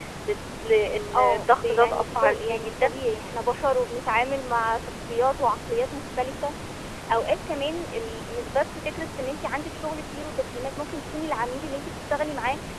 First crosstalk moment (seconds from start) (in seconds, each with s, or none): 1.1 s